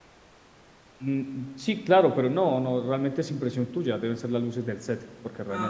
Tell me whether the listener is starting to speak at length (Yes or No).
Yes